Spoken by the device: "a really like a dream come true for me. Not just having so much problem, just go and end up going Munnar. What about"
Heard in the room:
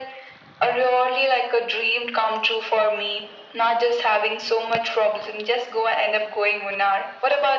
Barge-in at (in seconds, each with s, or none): none